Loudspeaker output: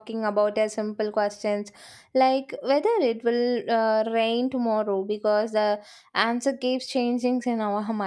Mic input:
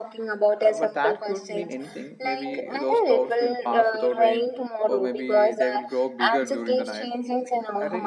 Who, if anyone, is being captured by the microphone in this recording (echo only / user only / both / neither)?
both